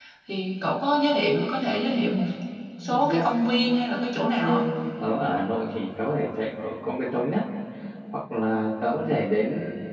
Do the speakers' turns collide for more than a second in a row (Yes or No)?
No